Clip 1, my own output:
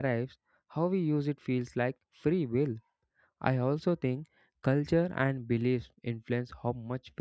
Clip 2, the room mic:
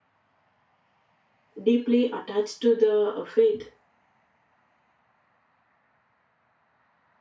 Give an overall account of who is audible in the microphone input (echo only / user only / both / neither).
user only